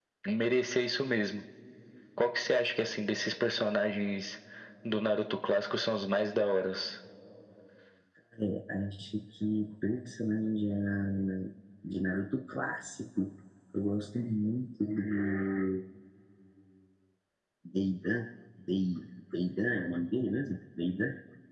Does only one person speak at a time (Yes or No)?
Yes